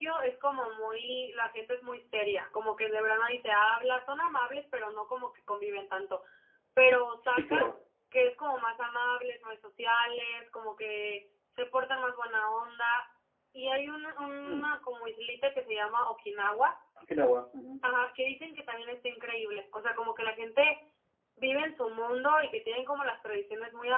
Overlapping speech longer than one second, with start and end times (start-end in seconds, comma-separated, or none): none